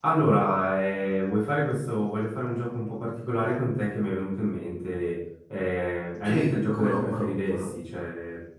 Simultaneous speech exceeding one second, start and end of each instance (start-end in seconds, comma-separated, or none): 6.2-7.7